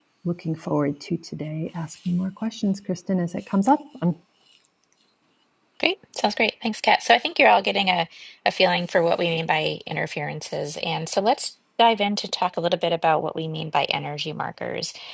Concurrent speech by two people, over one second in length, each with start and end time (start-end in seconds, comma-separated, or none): none